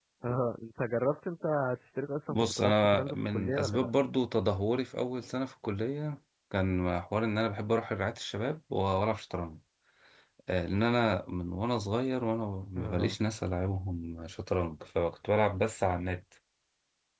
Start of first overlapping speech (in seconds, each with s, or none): 2.3 s